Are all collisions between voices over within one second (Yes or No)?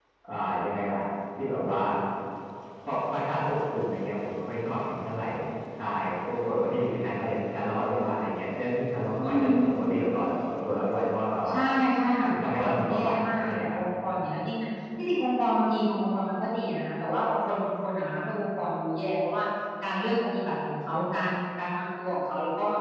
No